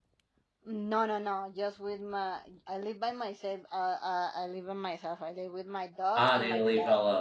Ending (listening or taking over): taking over